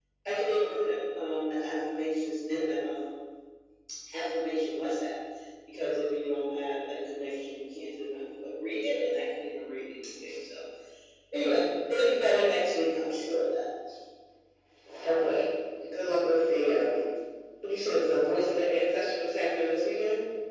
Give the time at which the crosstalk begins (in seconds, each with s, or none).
none